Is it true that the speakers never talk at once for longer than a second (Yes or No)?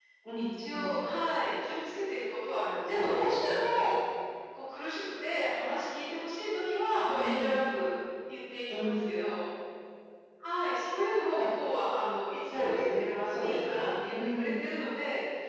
No